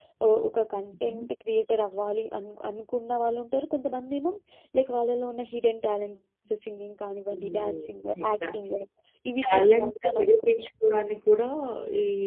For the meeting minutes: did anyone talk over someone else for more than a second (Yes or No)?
Yes